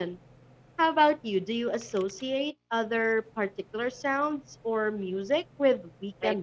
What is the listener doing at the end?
taking over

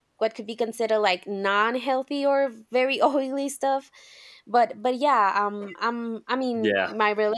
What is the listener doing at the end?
listening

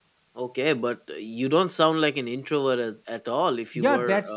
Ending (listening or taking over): taking over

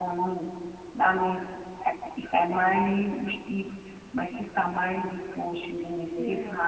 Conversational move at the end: listening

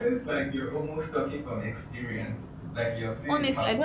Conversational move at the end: taking over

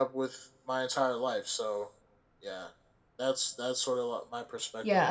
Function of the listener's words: taking over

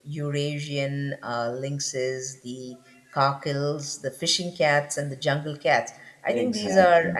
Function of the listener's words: listening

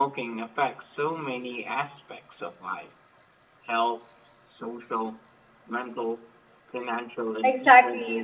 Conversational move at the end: taking over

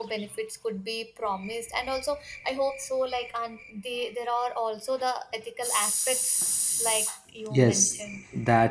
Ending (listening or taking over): taking over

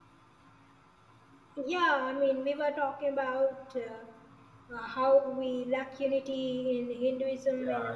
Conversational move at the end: taking over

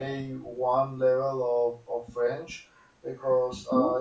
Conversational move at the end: listening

